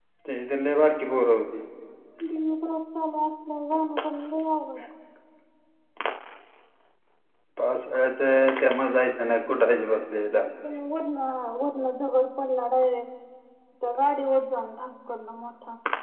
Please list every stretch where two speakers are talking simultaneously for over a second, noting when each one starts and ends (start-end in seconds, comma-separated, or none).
none